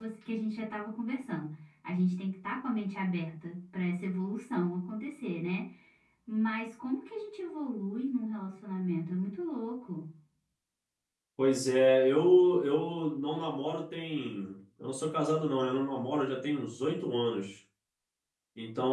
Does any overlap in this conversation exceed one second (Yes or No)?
No